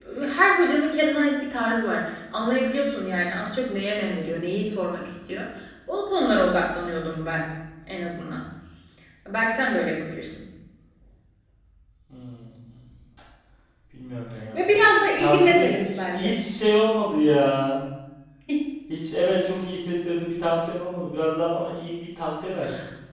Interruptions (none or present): present